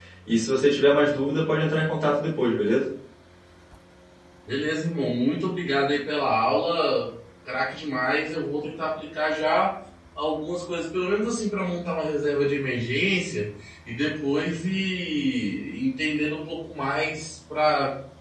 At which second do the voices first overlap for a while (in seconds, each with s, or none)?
none